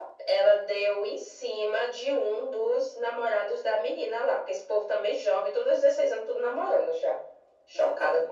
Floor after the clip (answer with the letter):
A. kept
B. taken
B